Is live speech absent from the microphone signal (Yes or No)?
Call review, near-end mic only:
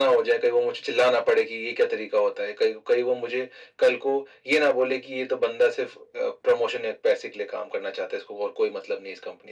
Yes